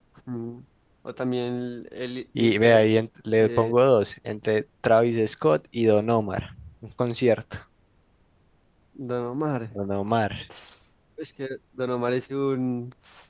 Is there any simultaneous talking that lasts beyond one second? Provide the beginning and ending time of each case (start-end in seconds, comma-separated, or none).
none